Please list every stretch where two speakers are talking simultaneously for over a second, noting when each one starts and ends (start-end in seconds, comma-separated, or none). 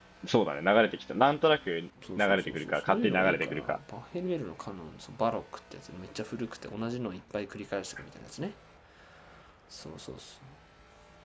2.2-3.8